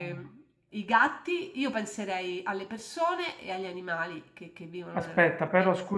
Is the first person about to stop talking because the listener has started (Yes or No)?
Yes